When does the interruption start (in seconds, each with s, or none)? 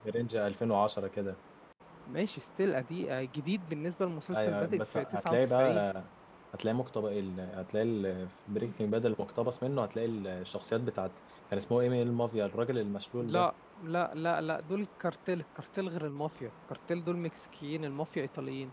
4.3 s